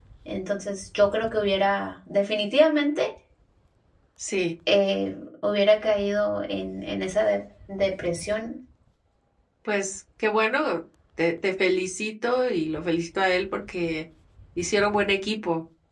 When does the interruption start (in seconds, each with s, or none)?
none